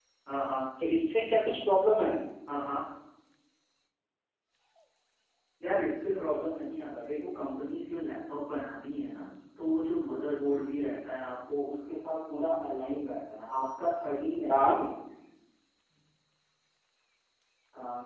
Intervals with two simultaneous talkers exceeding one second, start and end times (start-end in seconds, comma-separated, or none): none